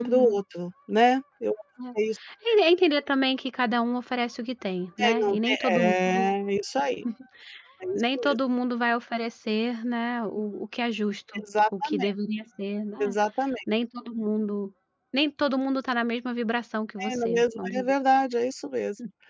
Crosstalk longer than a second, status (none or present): present